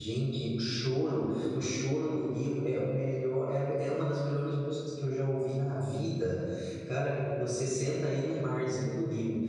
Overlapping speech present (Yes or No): No